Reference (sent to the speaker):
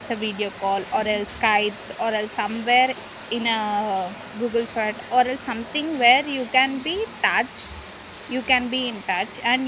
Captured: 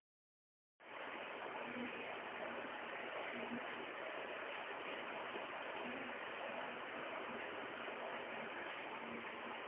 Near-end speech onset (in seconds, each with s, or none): none